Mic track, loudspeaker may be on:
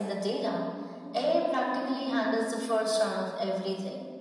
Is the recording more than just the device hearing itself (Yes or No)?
No